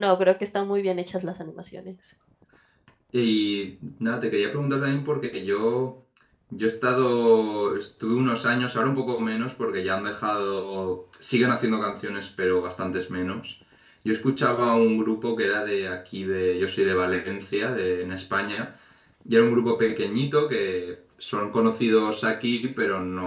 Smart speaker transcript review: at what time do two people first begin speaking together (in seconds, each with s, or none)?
none